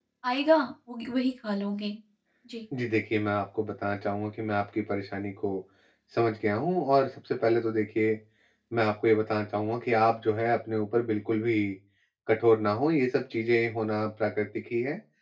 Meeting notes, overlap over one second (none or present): none